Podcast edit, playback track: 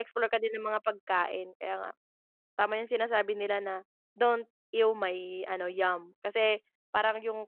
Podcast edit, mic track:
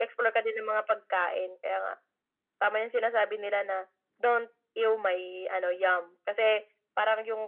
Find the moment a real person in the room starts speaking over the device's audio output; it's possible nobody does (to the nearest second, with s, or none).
none